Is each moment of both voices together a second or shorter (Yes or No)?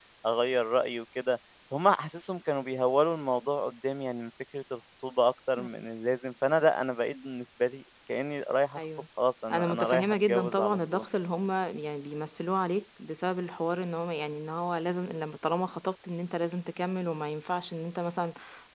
No